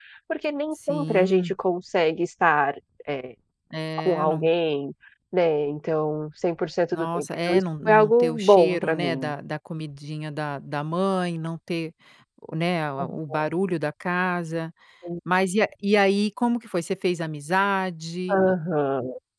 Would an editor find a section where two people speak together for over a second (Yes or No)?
Yes